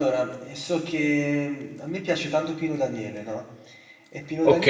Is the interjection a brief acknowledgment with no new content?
Yes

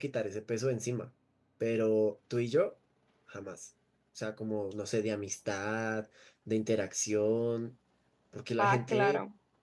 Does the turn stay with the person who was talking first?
Yes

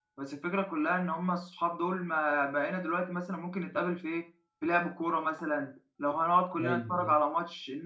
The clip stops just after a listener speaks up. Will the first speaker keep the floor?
Yes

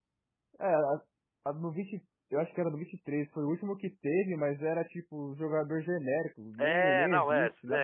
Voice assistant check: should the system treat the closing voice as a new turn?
Yes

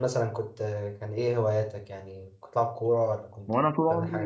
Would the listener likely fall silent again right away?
No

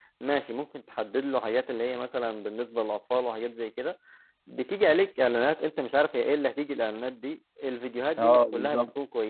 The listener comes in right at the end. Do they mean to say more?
No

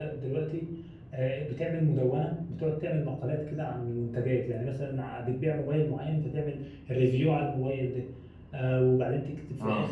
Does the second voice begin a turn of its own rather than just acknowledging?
No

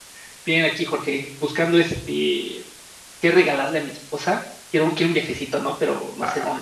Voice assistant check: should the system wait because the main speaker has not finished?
No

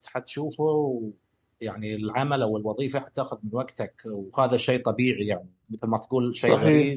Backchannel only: Yes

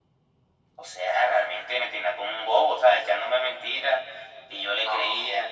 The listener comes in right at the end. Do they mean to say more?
No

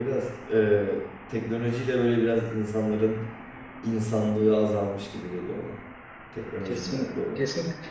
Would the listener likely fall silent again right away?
No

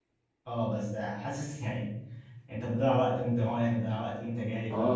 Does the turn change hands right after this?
Yes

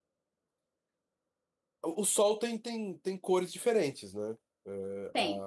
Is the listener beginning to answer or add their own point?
No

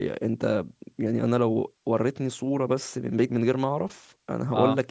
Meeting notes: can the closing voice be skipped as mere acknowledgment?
Yes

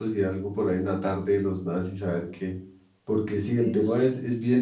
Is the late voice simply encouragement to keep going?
Yes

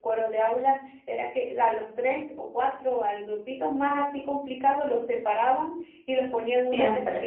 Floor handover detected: No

